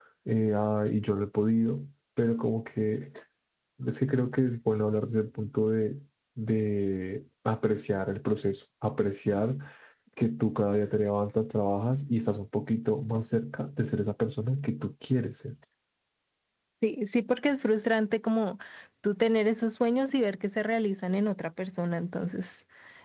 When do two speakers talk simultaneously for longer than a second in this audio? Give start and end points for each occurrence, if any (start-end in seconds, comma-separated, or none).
none